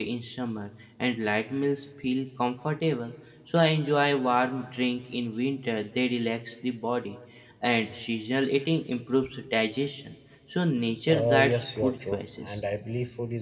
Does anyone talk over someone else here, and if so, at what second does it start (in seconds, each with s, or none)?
11.1 s